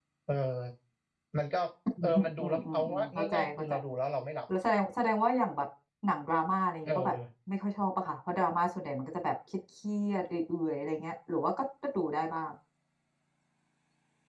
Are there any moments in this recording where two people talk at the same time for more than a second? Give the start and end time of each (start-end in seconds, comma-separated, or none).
2.0-3.7